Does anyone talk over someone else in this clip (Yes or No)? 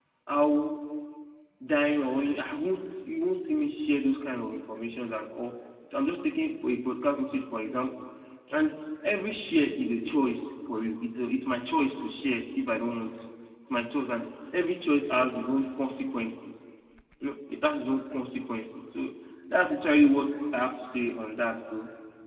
No